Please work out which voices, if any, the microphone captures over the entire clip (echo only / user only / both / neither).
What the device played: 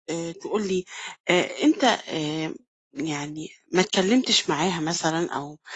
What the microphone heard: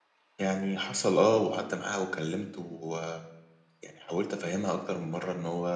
user only